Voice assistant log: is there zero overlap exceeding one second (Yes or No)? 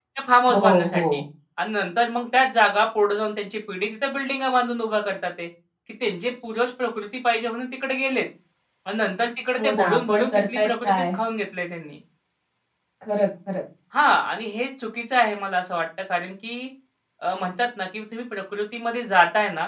No